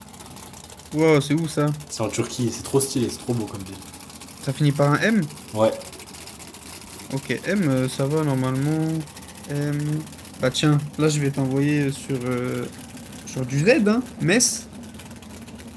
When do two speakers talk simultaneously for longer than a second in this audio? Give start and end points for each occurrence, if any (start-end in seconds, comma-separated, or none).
none